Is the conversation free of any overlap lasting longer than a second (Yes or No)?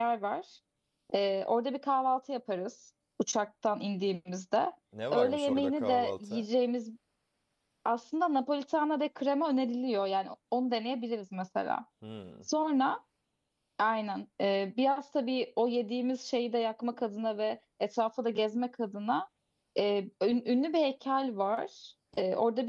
No